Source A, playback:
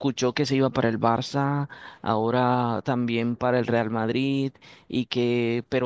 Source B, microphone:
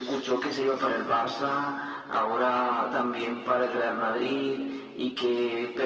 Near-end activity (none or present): none